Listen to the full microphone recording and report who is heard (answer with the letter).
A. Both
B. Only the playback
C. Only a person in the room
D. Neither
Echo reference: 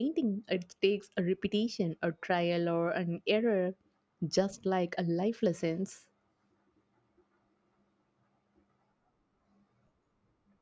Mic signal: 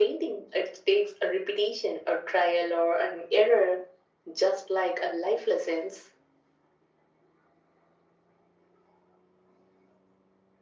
B